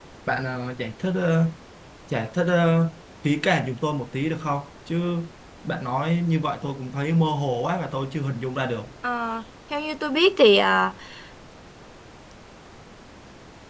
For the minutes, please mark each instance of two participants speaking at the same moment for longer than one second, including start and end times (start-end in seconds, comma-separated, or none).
none